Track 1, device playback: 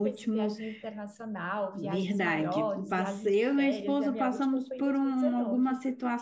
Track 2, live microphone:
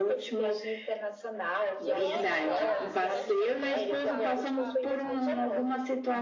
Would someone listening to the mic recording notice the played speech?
Yes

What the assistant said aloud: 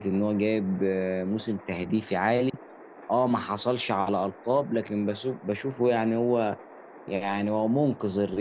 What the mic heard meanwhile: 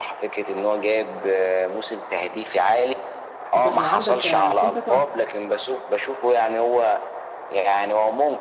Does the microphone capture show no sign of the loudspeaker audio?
No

